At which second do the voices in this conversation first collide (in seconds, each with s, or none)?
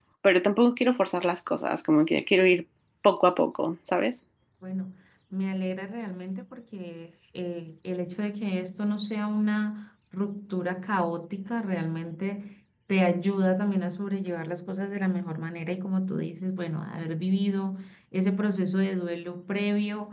none